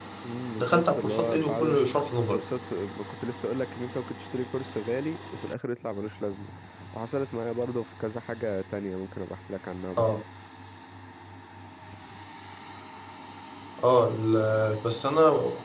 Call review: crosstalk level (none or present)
present